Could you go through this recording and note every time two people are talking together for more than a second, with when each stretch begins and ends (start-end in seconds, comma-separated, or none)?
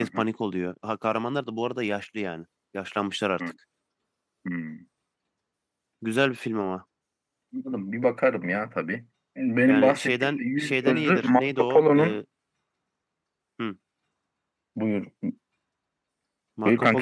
9.6-12.2